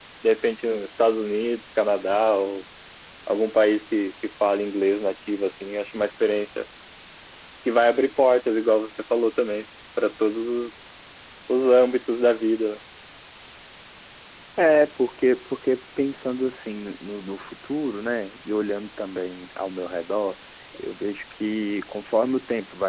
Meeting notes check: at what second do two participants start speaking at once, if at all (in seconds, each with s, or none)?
none